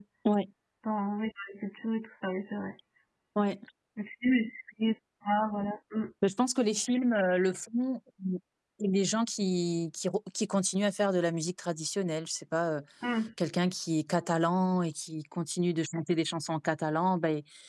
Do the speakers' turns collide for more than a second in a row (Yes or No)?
No